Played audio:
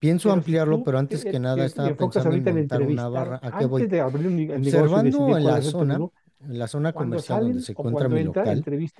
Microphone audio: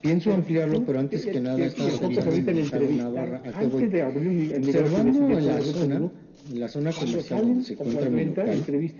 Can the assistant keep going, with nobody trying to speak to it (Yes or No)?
No